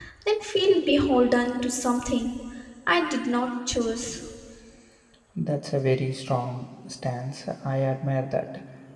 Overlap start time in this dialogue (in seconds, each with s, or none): none